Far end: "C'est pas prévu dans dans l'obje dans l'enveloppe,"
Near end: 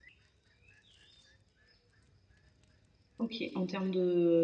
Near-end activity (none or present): present